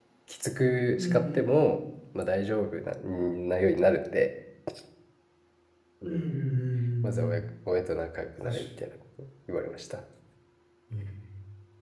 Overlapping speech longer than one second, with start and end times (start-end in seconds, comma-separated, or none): none